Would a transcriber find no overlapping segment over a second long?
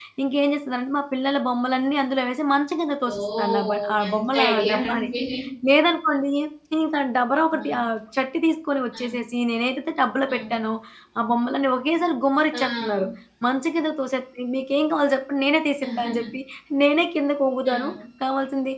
No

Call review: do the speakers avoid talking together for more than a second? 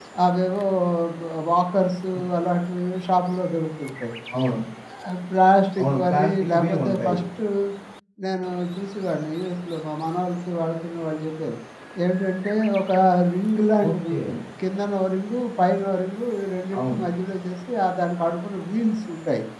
No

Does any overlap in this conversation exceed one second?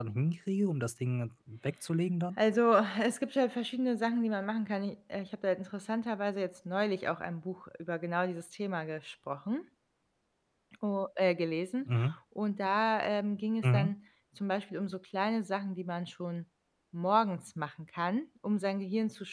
No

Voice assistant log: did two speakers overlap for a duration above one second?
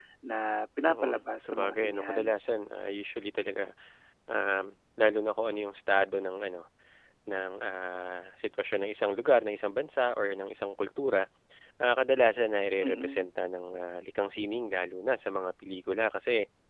Yes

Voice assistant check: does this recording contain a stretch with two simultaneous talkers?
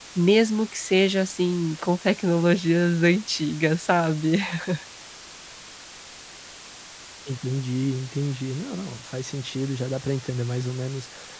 No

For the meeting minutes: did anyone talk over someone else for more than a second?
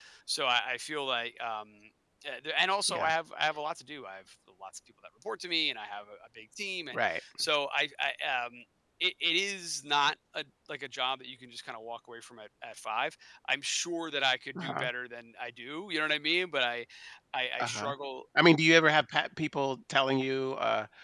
No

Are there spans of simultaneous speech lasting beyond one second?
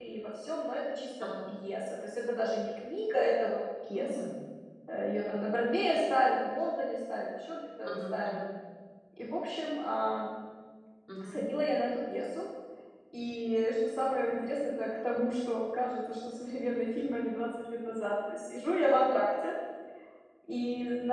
No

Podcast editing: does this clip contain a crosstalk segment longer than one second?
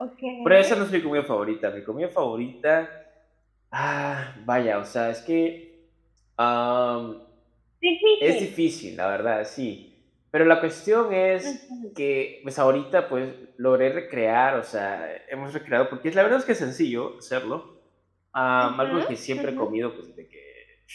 No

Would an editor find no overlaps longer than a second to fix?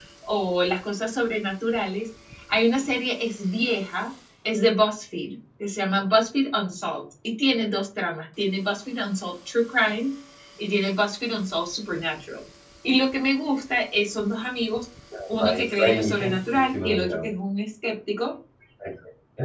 No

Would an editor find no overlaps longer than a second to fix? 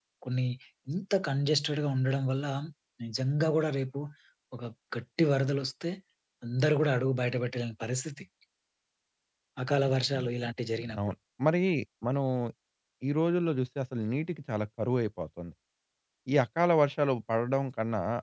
Yes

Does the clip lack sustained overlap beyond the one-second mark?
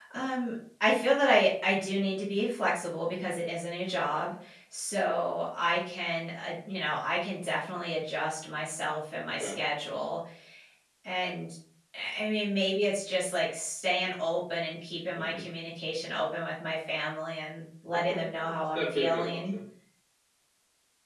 No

